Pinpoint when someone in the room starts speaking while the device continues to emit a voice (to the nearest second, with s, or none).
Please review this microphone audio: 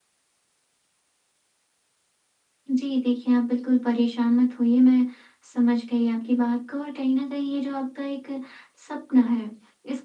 3 s